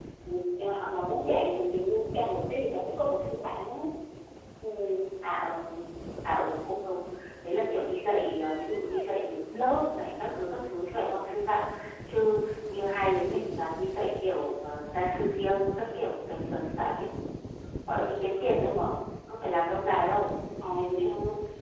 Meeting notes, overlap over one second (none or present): none